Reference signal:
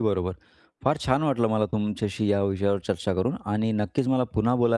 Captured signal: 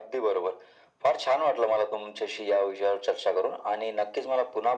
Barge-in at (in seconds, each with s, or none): none